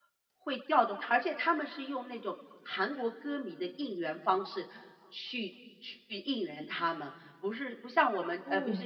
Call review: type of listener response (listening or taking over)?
listening